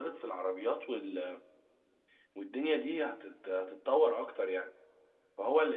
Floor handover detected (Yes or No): No